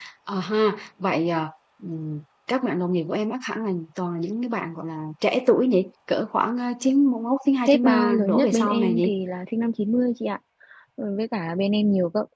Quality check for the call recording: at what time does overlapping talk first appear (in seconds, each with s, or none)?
7.7 s